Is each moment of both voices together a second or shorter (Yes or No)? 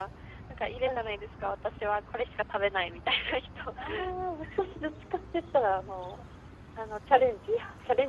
Yes